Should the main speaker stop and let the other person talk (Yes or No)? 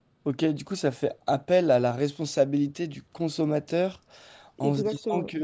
No